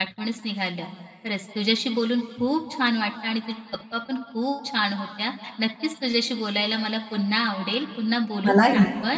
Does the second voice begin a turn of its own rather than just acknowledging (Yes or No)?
No